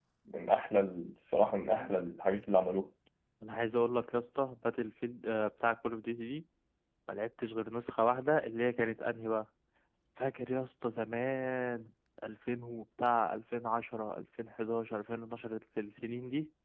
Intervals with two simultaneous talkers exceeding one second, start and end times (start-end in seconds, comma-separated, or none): none